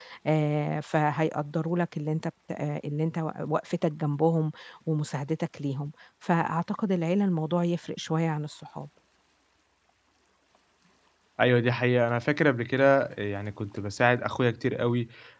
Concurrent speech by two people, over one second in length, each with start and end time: none

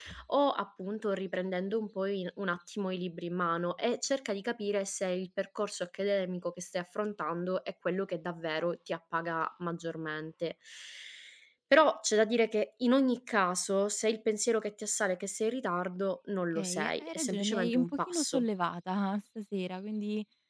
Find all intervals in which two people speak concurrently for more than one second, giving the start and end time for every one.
16.6-18.4

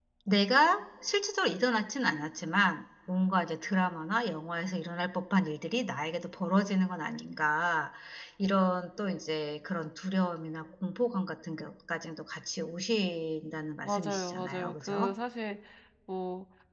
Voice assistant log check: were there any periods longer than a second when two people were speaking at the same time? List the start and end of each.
13.8-15.1

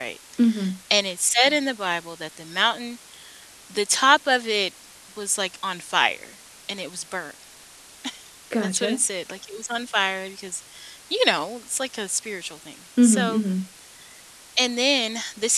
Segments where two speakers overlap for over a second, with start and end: none

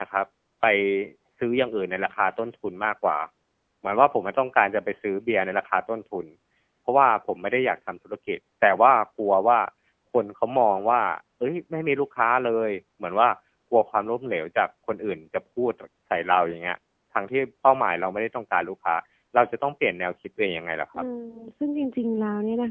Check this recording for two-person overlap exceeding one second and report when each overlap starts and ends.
none

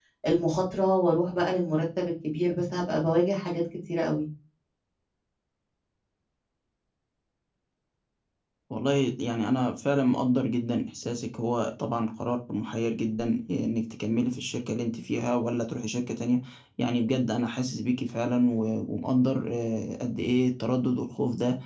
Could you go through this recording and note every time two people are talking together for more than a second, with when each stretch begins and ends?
none

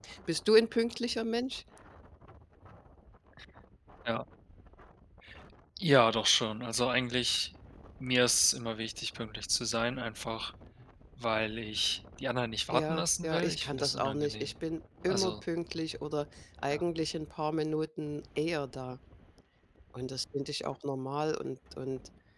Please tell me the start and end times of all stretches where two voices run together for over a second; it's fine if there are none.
12.7-14.5

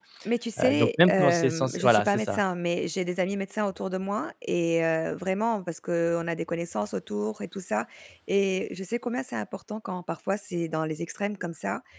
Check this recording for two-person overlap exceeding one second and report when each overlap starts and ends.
0.6-2.4

